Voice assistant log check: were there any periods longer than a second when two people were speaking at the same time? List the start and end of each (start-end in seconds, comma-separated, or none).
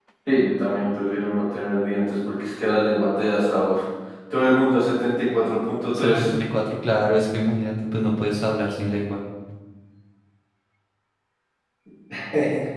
none